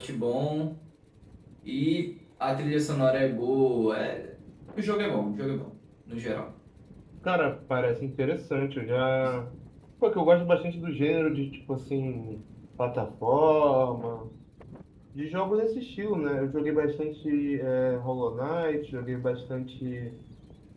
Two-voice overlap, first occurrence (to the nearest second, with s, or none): none